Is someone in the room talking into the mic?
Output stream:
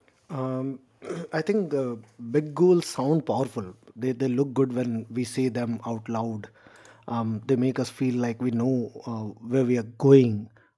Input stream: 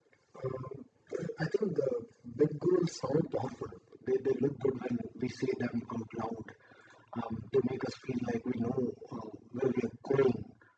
No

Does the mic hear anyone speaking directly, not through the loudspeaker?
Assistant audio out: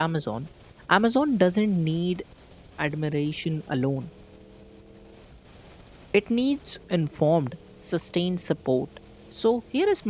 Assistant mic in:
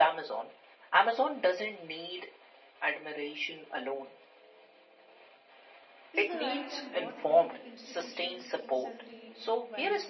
Yes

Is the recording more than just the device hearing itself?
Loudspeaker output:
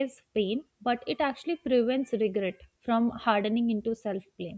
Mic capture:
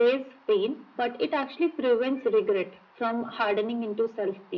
No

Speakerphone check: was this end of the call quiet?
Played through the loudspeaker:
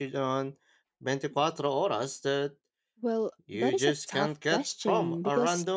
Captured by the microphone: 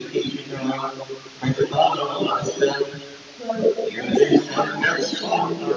Yes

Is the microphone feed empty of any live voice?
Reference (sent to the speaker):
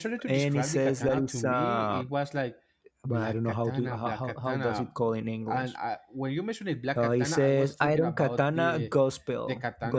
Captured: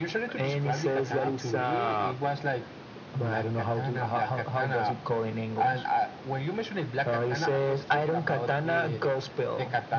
Yes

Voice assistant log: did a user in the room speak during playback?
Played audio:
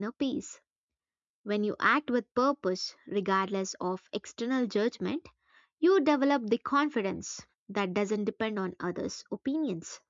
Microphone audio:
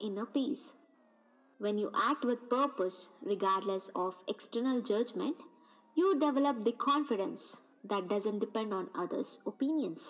No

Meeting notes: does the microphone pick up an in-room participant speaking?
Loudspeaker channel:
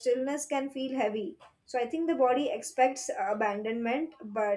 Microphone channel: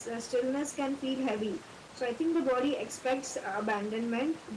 No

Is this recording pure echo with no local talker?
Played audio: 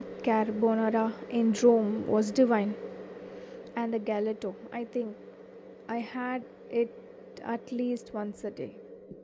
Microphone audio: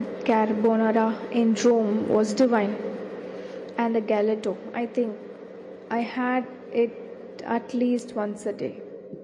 Yes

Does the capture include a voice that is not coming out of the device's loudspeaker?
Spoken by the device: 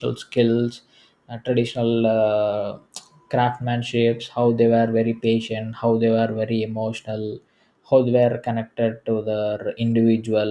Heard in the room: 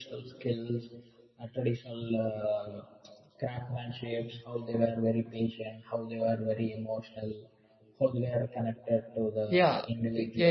Yes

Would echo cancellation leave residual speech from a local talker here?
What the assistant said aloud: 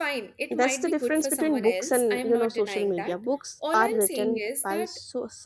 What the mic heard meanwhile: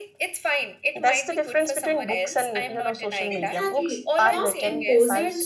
Yes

